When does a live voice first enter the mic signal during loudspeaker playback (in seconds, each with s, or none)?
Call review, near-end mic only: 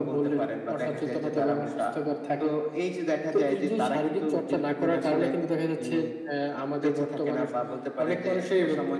none